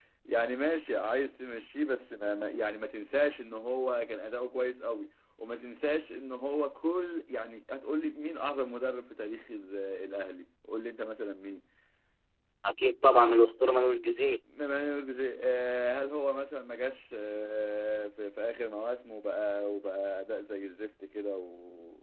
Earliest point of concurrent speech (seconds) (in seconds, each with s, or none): none